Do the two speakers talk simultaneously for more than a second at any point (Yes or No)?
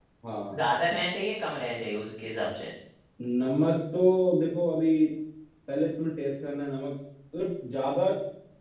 No